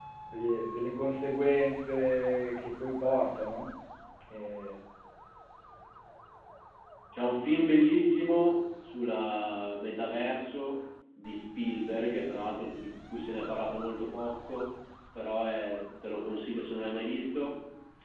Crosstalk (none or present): none